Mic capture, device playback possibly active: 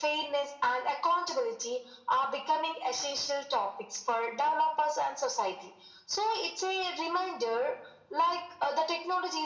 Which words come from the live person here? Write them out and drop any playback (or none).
none